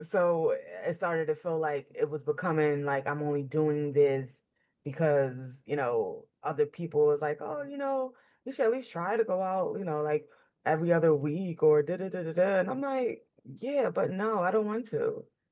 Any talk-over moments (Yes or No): No